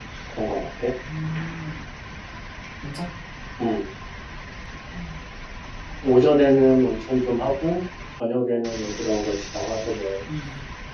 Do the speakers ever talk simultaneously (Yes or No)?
No